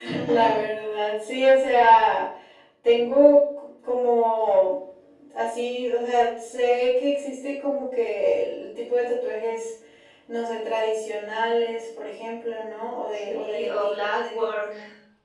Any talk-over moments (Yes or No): Yes